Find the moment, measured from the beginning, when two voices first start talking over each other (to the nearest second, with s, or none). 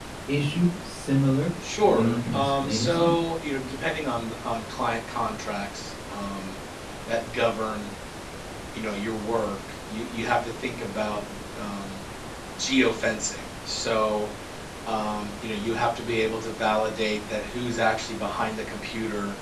2 s